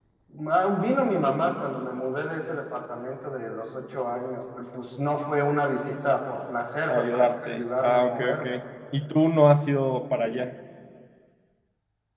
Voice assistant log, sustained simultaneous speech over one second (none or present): present